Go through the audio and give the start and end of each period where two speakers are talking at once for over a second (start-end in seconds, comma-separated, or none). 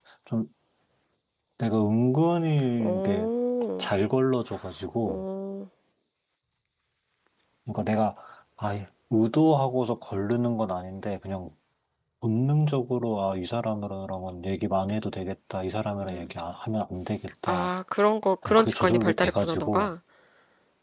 18.4-19.9